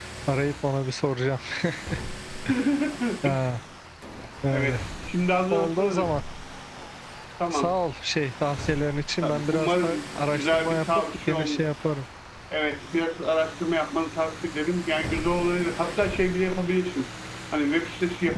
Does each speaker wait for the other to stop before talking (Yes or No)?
No